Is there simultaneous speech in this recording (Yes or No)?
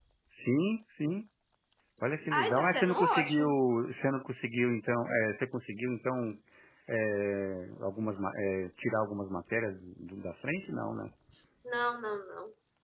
Yes